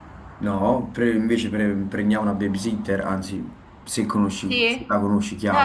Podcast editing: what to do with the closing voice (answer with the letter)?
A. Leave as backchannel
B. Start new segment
B